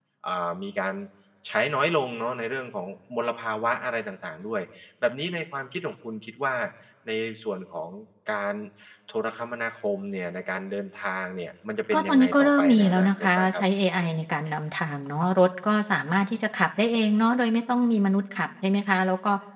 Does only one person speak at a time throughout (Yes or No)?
No